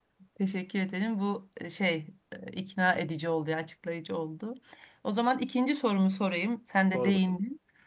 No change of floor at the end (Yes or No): Yes